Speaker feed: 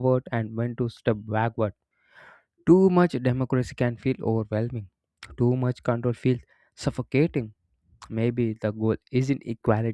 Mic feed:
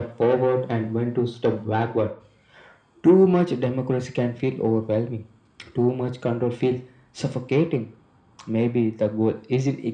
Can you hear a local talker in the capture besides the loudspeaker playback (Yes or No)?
No